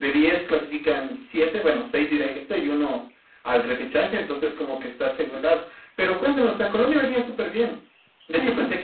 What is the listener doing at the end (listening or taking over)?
listening